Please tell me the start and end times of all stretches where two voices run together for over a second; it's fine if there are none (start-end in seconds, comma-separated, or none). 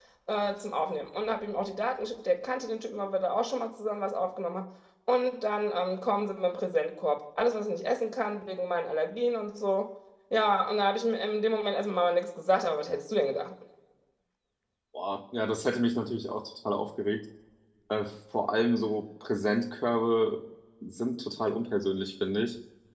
none